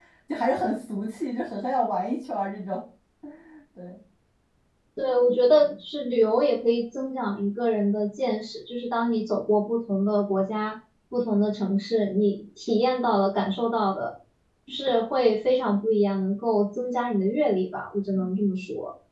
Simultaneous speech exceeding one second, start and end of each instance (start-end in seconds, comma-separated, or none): none